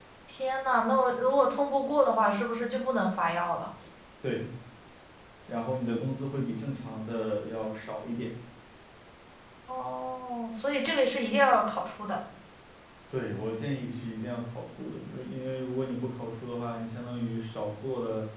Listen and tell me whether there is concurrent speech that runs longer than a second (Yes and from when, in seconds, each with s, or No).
No